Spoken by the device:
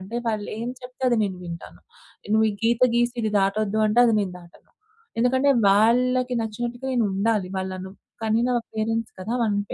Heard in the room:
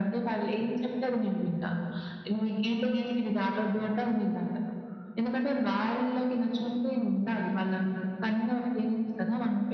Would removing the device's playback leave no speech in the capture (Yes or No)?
No